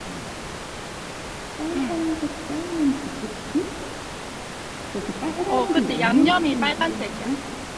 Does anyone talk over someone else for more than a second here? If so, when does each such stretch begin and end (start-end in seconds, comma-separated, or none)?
5.5-7.3